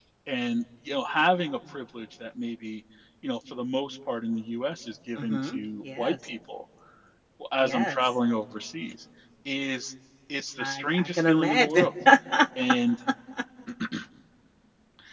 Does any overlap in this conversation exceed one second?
Yes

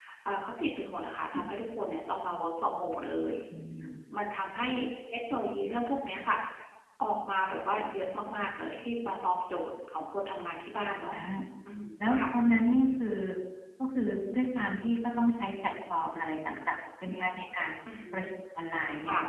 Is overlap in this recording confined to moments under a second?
Yes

